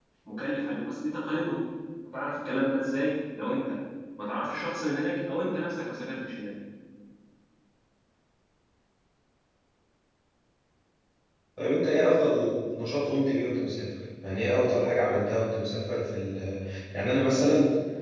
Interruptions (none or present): none